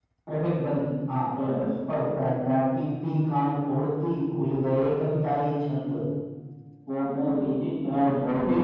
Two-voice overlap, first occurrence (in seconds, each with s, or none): none